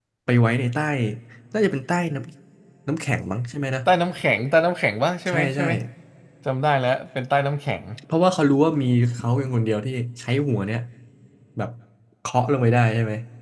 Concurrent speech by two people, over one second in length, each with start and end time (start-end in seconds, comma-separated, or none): none